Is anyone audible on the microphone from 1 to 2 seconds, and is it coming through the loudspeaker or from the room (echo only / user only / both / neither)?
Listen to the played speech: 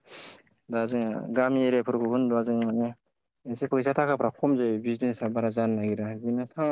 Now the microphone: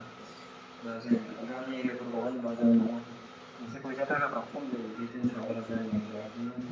echo only